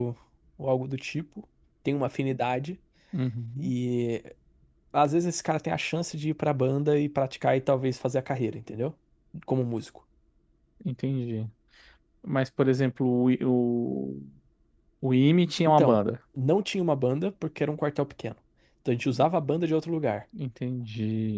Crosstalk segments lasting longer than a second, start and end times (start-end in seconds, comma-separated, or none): none